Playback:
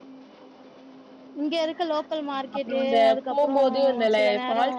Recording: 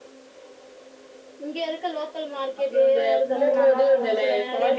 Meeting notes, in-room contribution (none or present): present